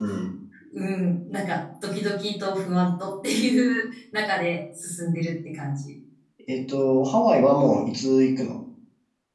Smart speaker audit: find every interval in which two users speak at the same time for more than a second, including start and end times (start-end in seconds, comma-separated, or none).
none